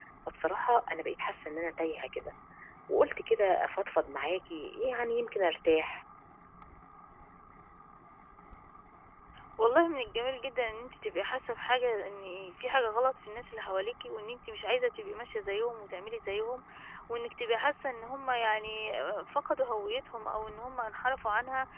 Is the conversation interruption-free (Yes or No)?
Yes